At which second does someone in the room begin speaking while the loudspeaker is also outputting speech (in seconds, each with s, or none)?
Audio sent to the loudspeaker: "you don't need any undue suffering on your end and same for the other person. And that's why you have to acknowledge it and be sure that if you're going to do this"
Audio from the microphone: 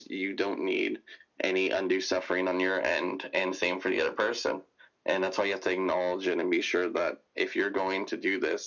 none